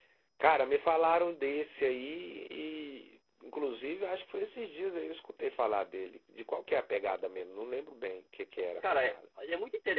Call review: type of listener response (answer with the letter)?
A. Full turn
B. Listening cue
A